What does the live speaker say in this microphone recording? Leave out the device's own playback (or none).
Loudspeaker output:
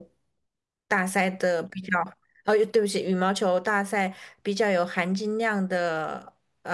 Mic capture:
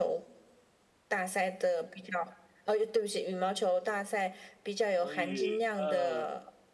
所以，嗯、